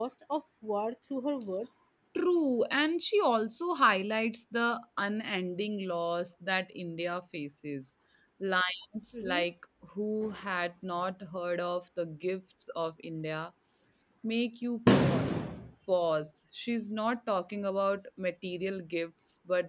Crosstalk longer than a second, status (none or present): none